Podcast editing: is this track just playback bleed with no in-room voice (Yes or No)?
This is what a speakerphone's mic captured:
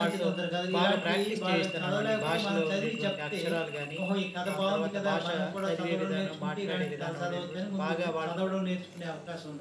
No